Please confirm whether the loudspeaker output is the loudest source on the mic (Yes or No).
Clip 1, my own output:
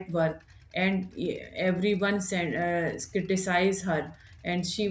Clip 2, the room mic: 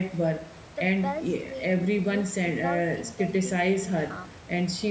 Yes